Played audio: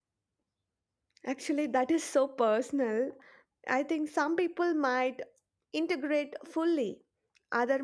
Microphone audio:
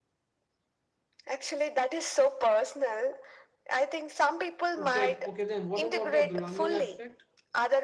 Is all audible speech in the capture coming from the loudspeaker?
No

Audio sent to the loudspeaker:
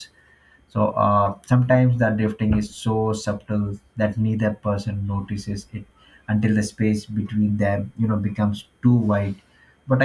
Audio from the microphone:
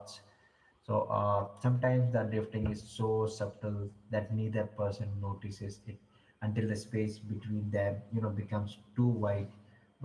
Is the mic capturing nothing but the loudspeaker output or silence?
Yes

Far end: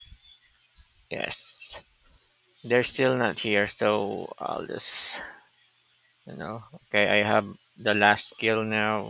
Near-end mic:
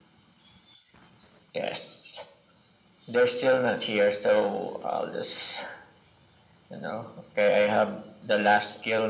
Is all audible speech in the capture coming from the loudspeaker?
Yes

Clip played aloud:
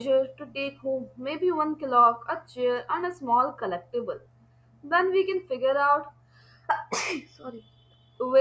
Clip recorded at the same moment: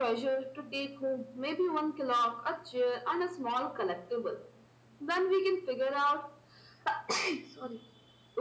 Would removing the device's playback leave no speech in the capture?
Yes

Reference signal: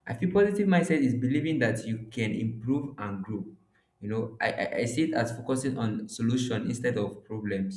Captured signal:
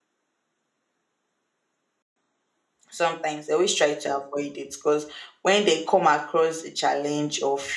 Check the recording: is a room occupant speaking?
Yes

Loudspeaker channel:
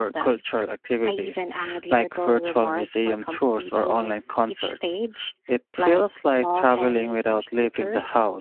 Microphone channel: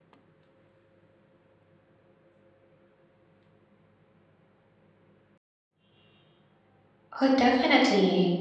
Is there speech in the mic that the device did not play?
Yes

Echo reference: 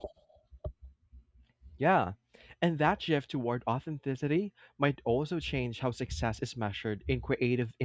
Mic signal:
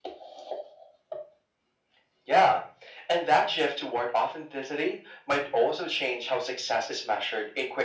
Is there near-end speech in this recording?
No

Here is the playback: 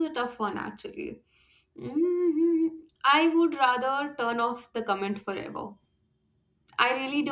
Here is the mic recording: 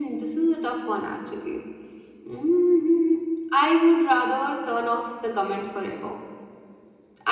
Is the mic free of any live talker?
Yes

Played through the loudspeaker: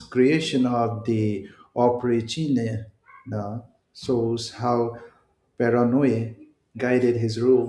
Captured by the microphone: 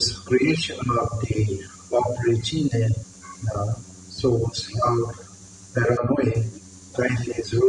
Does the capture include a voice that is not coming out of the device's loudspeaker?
No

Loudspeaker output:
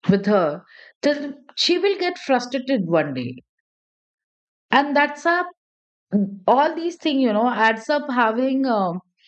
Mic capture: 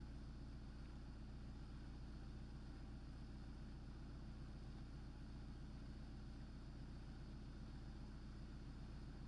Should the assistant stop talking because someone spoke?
No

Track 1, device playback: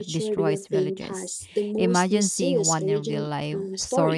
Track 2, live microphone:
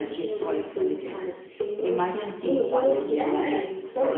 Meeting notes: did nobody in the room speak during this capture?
No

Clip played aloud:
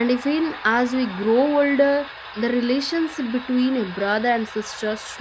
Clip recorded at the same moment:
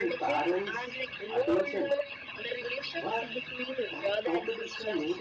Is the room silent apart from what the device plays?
No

